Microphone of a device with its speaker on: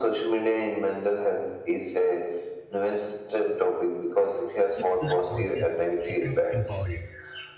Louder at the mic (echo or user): echo